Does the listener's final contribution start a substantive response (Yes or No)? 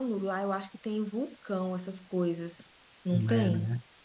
Yes